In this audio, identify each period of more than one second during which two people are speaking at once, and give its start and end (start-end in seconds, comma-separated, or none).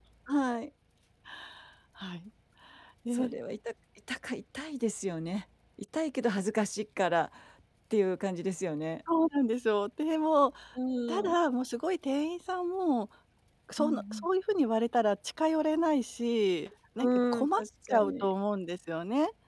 17.0-18.3